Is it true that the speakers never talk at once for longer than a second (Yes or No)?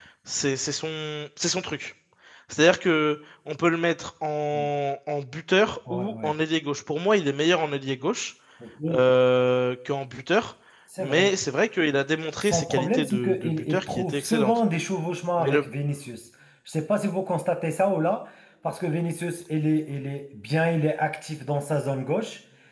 No